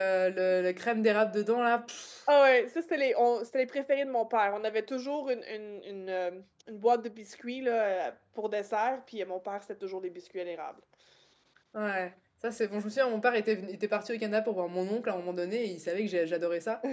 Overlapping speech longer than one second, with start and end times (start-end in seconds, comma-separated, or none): none